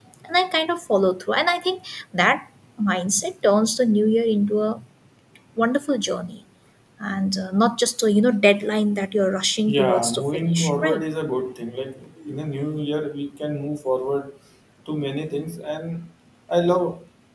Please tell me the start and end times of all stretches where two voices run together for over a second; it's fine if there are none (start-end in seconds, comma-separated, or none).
9.7-11.0